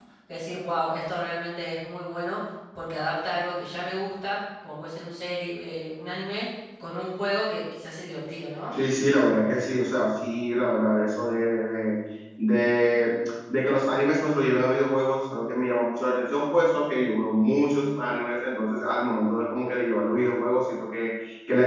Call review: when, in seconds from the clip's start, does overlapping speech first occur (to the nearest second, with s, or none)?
none